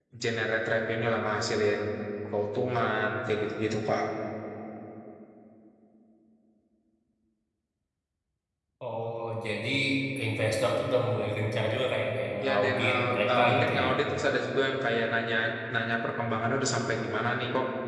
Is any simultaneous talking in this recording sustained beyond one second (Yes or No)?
Yes